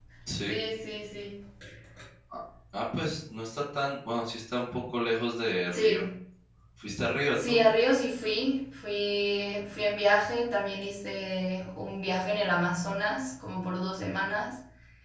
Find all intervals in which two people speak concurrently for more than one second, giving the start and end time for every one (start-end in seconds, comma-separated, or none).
none